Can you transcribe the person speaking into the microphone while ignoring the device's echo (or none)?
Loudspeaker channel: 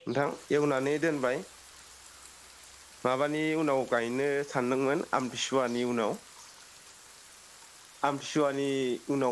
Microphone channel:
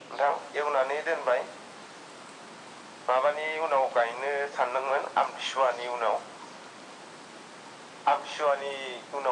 none